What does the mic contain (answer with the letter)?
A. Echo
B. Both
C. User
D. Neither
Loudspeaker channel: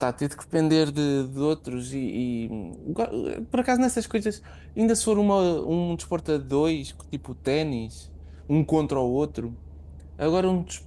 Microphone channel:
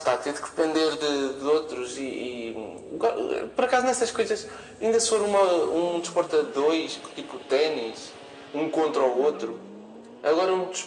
A